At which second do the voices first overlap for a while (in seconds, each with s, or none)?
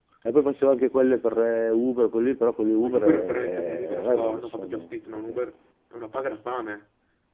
2.8 s